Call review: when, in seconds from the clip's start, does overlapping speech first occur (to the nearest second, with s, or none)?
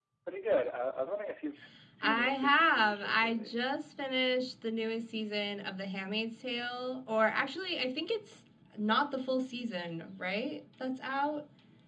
2 s